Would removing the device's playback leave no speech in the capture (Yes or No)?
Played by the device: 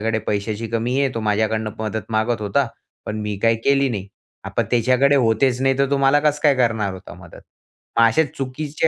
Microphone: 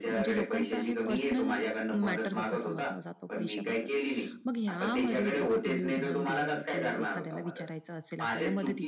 No